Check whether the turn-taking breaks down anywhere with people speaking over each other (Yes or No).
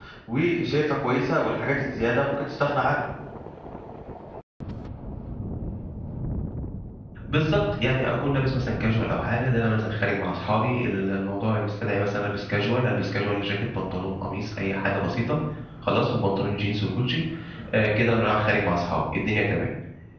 No